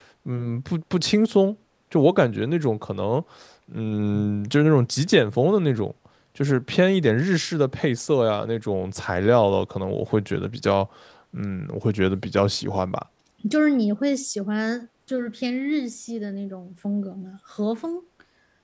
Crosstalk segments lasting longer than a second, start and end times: none

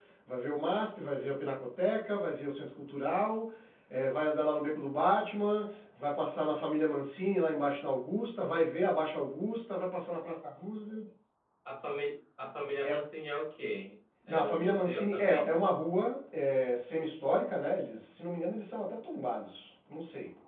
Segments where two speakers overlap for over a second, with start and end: 14.3-15.5

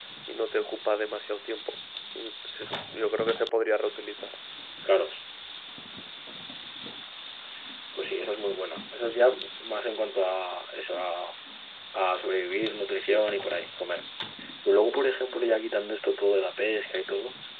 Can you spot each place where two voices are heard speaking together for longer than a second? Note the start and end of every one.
none

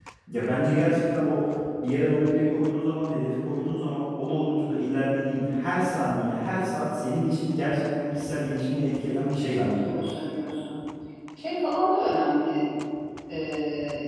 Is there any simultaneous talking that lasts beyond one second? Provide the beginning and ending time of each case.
none

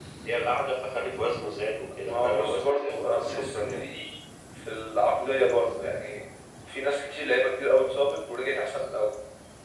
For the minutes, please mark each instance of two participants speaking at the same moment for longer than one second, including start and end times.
2.0-3.8

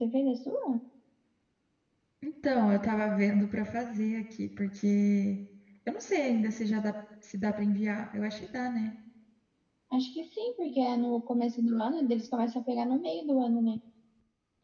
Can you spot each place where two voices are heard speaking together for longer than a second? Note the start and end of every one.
none

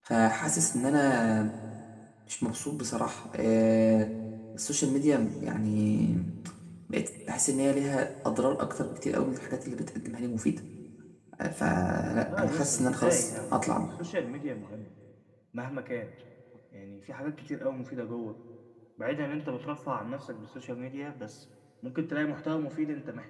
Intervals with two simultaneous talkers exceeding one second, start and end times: 11.6-13.8

